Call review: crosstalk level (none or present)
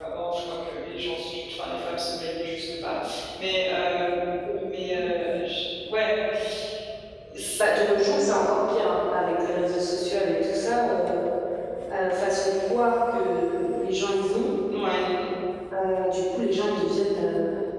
none